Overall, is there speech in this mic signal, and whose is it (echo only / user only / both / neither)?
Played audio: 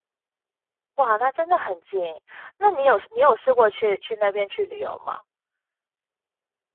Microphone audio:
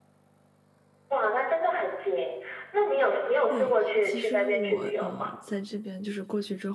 both